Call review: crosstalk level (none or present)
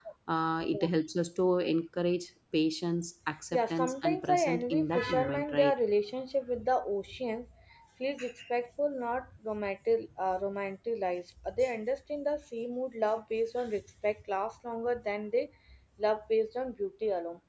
present